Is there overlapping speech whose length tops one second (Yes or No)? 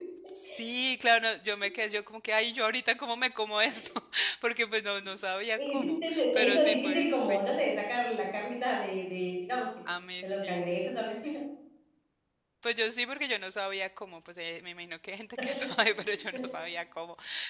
Yes